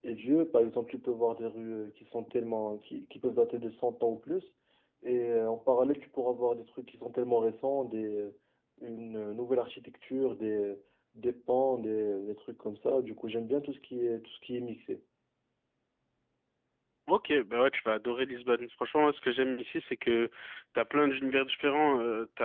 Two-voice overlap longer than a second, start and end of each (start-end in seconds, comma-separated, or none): none